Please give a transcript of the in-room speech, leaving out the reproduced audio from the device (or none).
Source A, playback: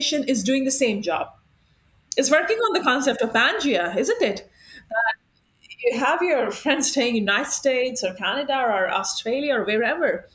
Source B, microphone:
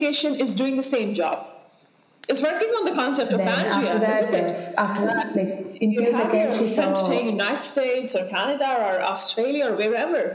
then after that uh, f- after like in few seconds she saw